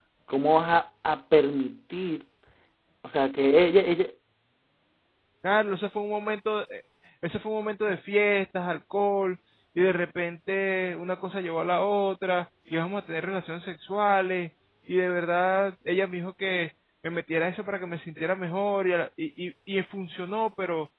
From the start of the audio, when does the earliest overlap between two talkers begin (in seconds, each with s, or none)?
none